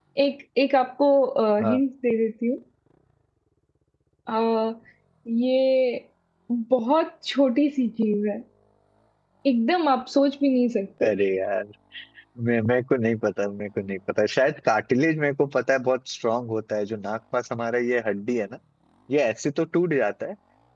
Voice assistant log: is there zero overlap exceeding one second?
Yes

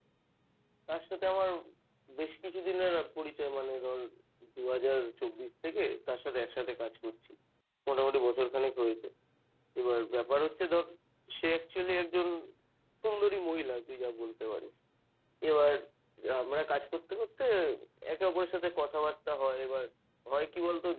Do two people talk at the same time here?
No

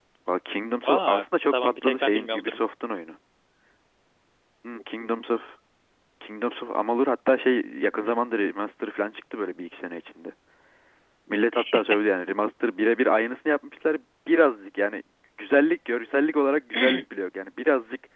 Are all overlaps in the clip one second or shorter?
No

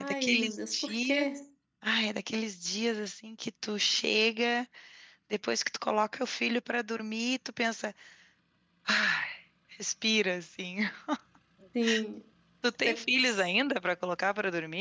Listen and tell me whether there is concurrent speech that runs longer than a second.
Yes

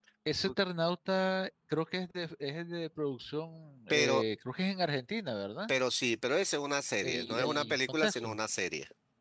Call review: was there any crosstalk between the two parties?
Yes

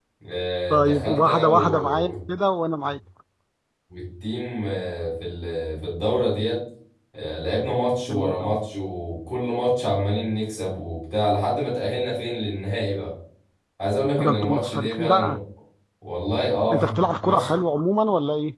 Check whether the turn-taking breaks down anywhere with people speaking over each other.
Yes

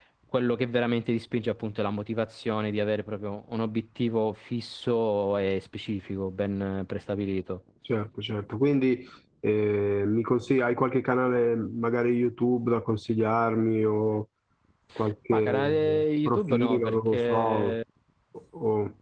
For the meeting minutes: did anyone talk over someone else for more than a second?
Yes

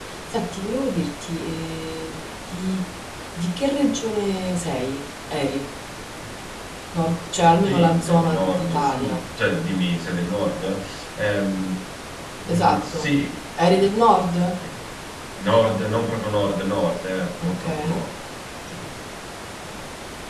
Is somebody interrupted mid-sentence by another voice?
Yes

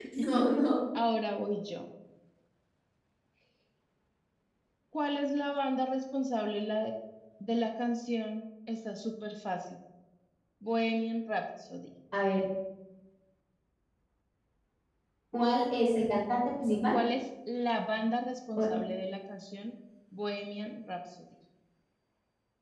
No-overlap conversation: Yes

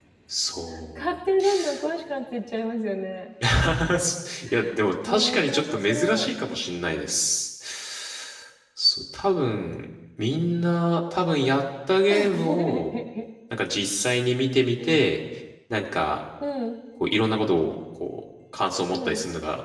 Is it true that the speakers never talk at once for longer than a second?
No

